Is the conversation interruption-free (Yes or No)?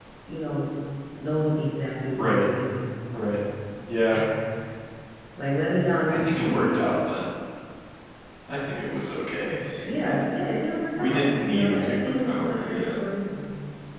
No